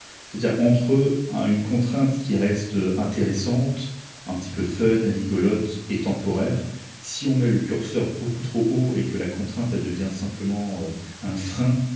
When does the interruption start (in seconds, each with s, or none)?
none